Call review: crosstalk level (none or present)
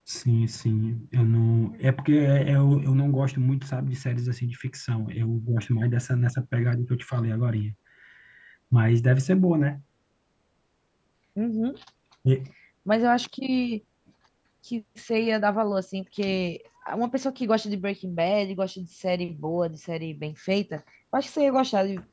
none